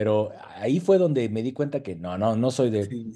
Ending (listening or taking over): taking over